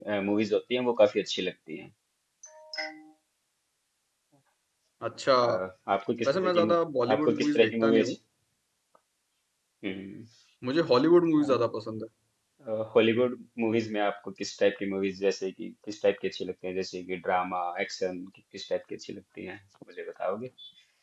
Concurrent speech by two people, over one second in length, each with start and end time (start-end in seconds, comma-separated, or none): 6.2-8.1